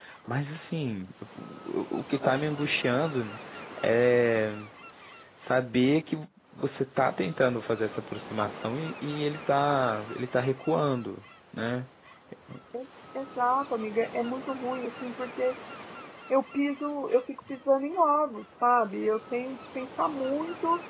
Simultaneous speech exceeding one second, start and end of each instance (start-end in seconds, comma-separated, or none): none